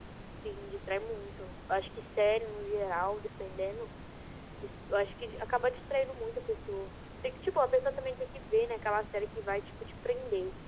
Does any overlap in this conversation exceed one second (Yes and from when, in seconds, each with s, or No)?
No